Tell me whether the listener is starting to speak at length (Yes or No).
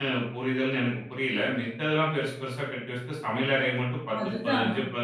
No